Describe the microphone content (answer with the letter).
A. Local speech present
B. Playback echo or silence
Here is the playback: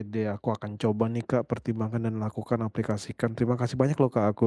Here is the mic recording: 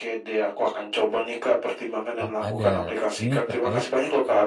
A